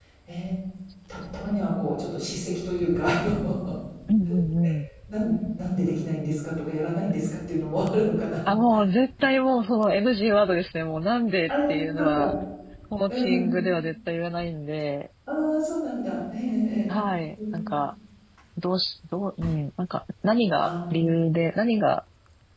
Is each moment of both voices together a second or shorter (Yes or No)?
Yes